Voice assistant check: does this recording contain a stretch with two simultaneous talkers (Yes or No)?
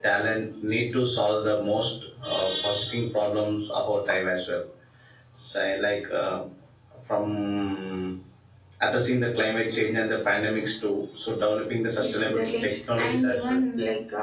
Yes